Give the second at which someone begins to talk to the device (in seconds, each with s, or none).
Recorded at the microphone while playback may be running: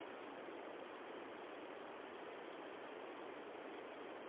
none